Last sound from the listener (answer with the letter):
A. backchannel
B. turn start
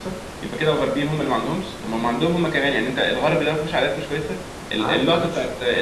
A